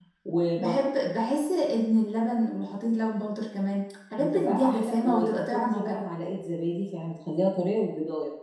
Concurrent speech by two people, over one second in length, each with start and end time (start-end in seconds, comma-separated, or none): 4.5-6.0